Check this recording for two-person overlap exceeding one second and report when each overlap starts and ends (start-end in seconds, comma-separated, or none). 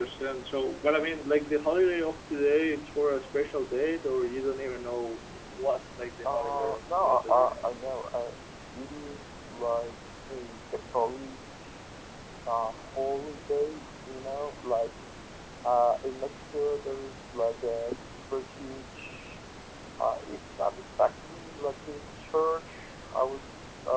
6.3-7.5